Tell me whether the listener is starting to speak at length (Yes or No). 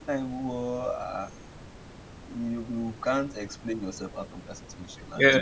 Yes